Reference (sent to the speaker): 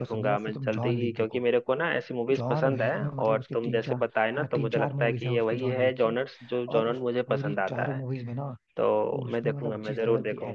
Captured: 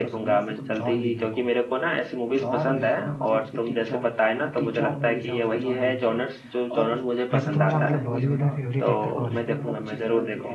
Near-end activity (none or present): present